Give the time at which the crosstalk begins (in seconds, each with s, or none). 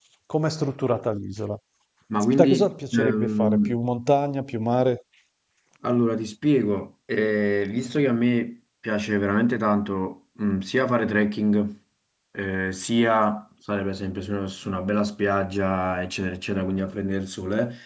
2.4 s